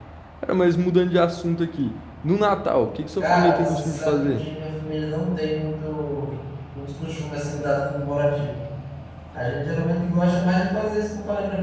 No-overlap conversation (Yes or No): No